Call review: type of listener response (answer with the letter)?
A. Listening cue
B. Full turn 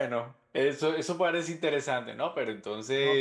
B